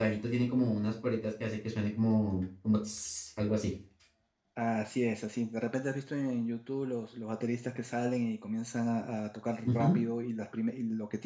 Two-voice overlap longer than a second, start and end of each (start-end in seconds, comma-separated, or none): none